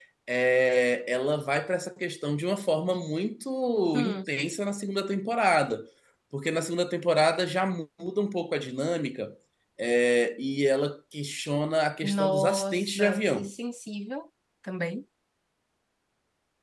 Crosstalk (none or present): present